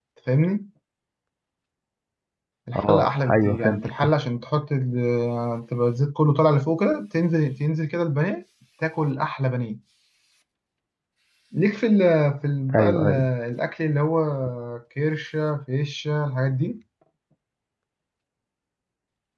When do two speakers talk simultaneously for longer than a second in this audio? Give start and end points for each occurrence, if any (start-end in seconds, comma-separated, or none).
2.7-4.0